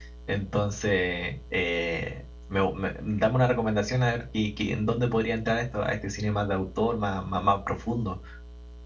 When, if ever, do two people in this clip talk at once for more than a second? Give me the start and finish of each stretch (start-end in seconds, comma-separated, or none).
none